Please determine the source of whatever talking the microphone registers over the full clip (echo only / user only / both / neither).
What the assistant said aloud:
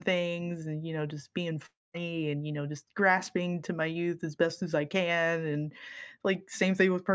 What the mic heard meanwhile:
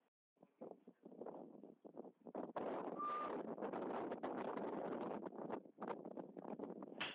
neither